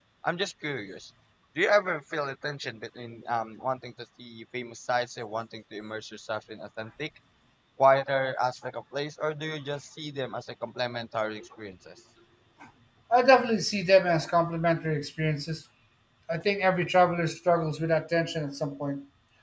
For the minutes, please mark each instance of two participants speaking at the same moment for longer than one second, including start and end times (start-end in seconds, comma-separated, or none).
none